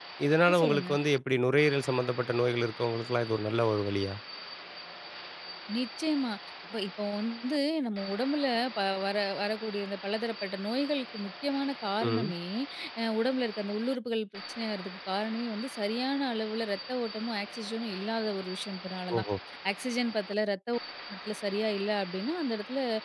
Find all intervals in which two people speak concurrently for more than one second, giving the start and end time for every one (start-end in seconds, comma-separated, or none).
none